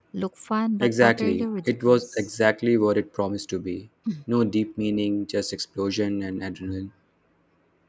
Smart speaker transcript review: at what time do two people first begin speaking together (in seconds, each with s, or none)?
0.8 s